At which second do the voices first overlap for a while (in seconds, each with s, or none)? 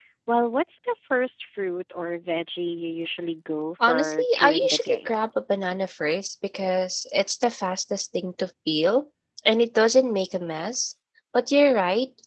3.8 s